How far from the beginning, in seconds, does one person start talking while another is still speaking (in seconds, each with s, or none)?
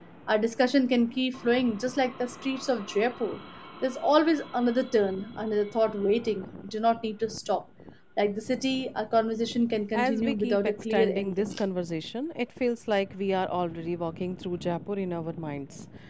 9.9 s